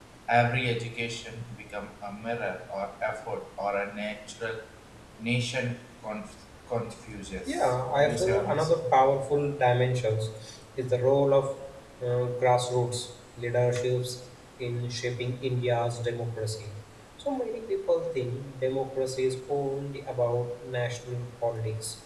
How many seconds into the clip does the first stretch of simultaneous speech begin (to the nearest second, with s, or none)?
7 s